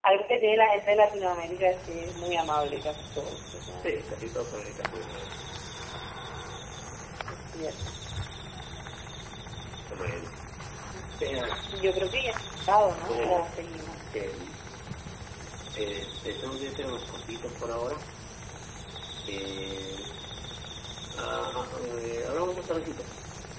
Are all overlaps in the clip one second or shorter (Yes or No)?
Yes